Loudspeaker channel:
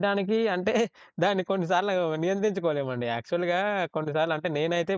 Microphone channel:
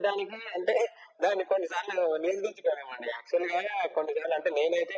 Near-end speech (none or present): none